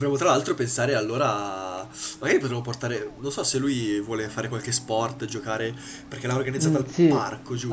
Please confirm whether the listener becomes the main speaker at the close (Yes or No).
Yes